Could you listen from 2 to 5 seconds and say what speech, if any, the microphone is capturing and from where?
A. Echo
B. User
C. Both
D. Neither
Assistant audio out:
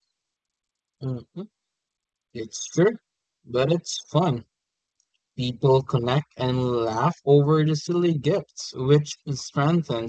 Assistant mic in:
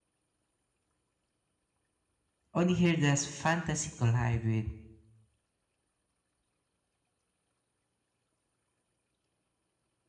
B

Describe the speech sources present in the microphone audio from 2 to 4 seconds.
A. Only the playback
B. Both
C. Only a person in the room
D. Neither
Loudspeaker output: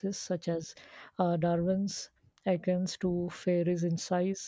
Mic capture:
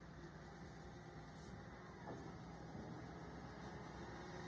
D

